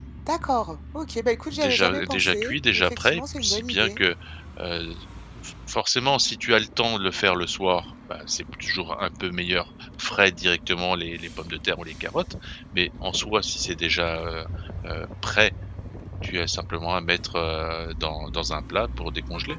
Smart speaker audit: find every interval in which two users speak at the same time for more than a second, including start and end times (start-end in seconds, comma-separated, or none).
1.5-4.0